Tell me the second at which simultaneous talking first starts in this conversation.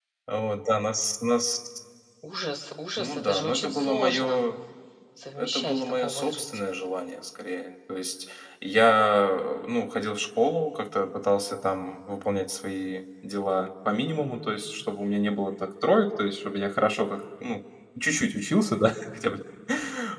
3 s

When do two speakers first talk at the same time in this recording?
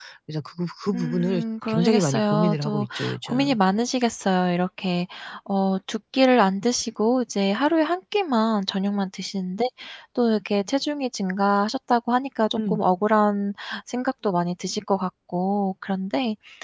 1 s

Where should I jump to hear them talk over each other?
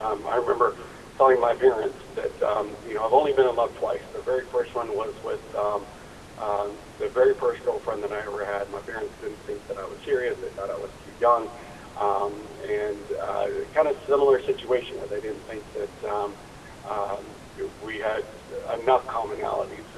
none

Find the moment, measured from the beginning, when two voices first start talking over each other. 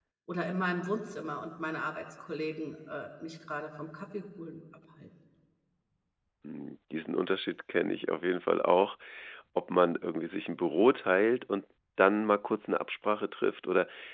none

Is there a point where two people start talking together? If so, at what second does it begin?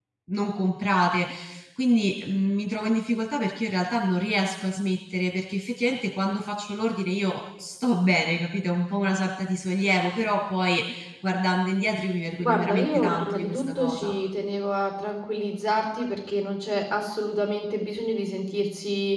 12 s

